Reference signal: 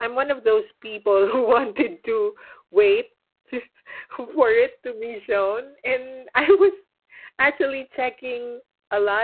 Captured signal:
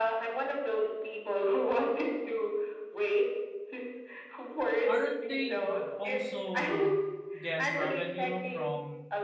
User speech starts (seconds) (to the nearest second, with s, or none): 5 s